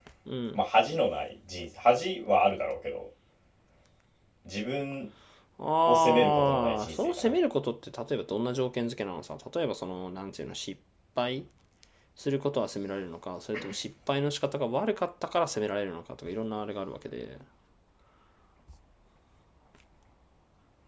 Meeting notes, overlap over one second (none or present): present